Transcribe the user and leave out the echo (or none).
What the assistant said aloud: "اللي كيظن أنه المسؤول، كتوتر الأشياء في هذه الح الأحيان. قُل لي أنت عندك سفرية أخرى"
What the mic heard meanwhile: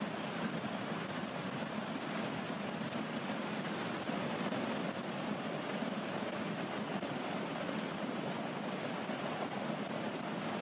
none